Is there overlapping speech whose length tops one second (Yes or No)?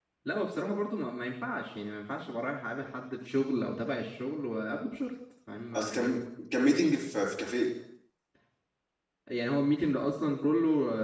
No